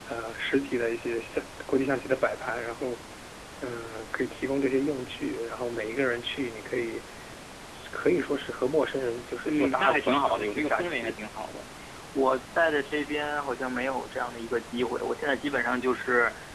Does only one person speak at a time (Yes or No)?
No